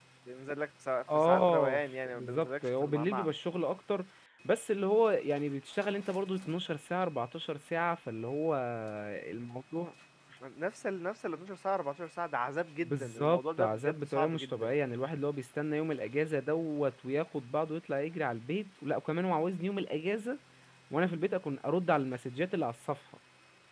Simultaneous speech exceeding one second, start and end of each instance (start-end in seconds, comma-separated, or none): 1.1-3.3, 12.8-14.7